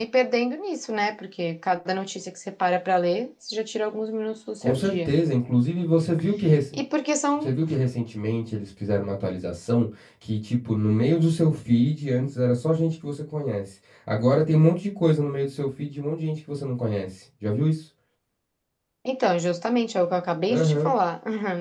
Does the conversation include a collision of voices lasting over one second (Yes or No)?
No